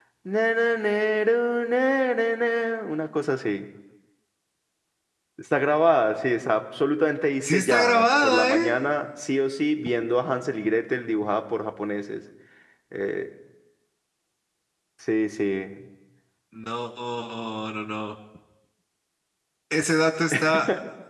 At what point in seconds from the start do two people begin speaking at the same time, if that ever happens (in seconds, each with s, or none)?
7.4 s